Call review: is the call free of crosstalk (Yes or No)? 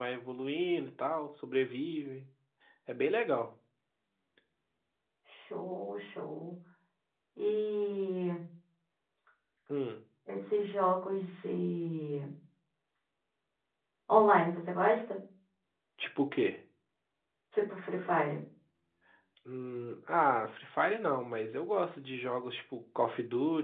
Yes